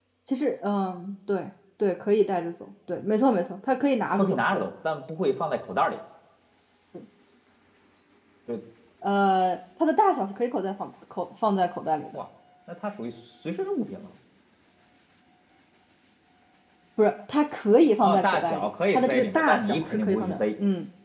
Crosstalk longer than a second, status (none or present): present